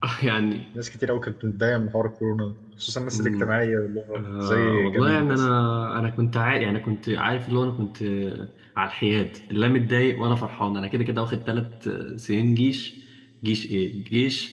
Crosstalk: present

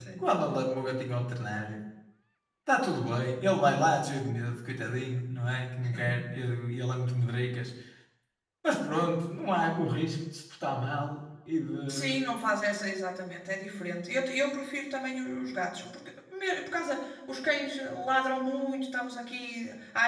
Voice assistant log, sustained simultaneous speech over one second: none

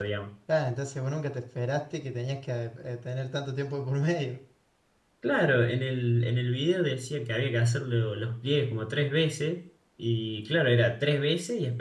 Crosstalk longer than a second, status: none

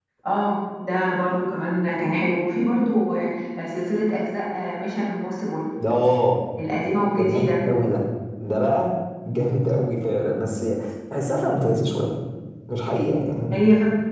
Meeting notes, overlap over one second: none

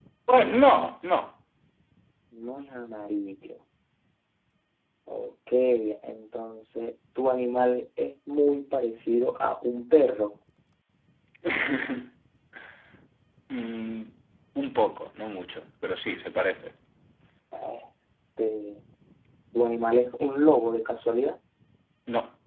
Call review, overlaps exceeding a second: none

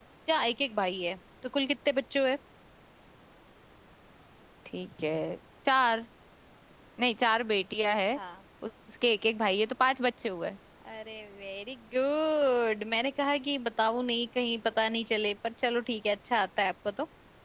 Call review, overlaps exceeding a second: none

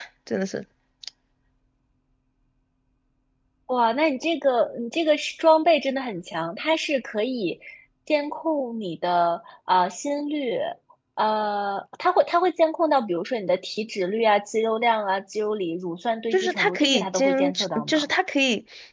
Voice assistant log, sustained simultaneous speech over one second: present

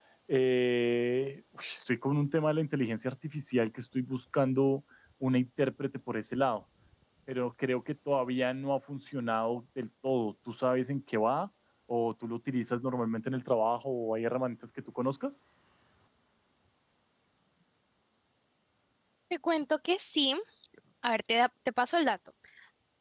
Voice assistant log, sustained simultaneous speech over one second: none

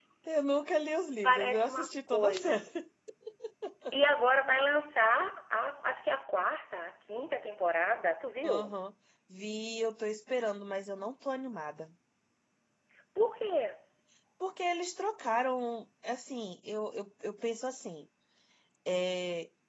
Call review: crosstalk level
present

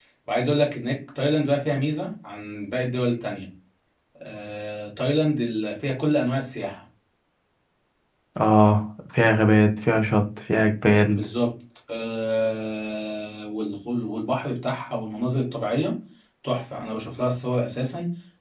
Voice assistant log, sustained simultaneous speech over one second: none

